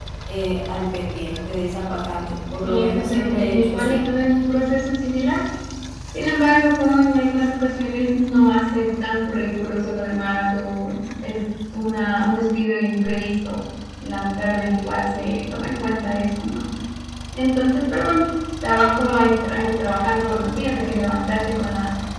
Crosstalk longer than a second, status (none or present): present